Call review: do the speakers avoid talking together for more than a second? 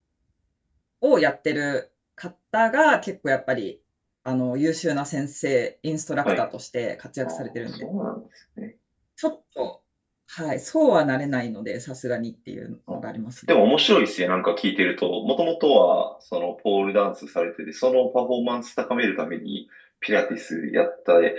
Yes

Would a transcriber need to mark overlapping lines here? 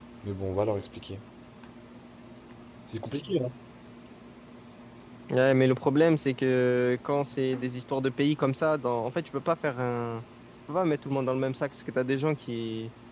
No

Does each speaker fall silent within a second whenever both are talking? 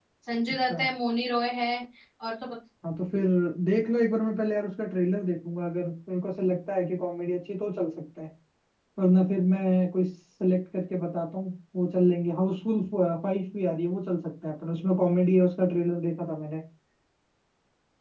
Yes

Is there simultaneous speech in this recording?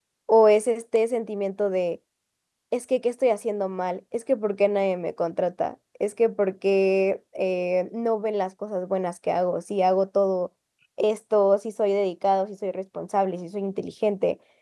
No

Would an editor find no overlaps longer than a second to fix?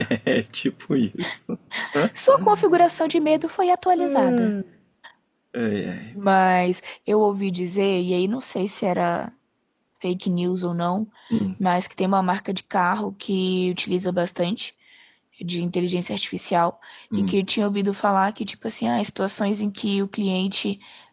Yes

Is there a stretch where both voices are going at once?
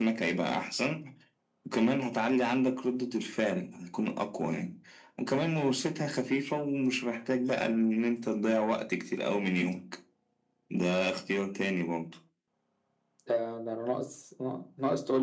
No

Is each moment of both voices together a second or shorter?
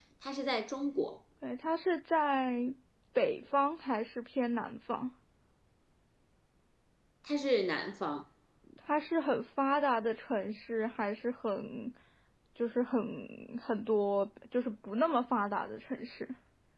Yes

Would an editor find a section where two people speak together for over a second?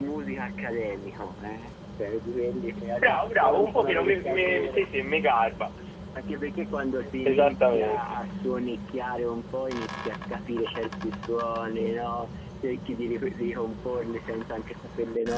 Yes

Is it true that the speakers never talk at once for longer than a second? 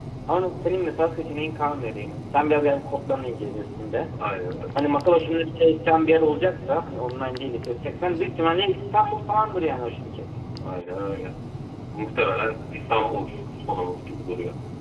Yes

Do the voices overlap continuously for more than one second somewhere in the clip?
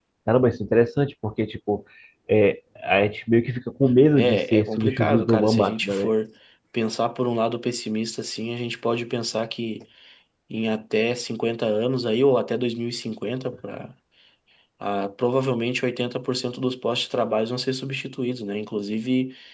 Yes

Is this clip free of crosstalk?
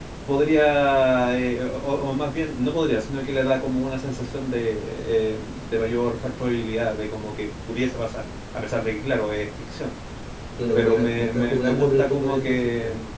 No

